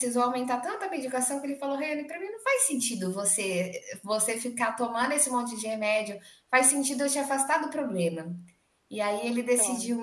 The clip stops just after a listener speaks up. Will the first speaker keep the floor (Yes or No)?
Yes